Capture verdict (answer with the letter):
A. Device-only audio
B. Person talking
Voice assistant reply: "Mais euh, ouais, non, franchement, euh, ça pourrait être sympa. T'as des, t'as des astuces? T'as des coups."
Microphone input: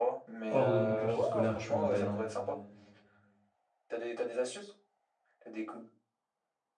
B